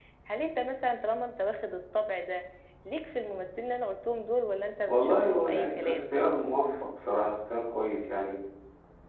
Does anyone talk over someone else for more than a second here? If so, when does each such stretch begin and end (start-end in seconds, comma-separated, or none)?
4.9-6.1